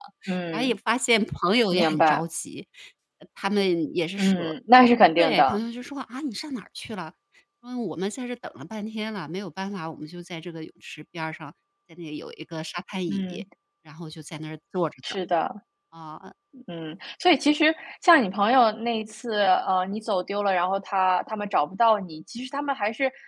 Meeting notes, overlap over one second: none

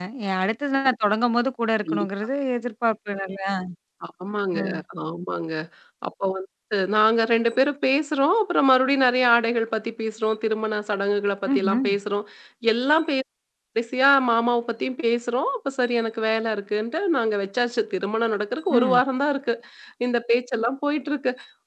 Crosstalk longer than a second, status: none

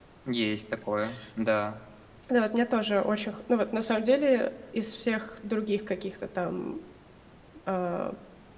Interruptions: none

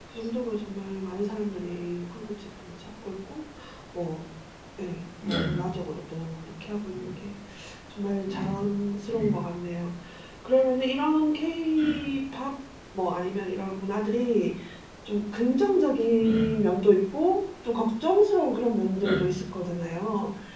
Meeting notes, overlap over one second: none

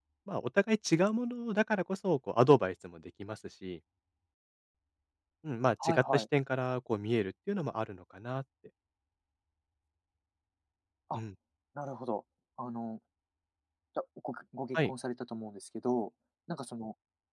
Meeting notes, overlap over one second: none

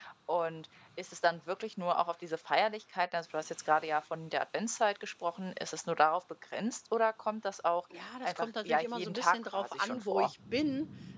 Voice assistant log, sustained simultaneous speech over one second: present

